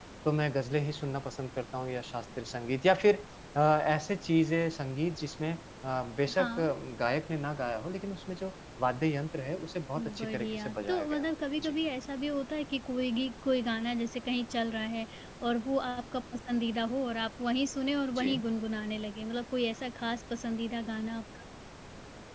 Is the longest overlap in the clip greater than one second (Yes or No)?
Yes